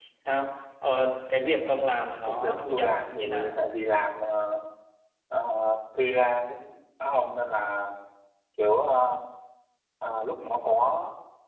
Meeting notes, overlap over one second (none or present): present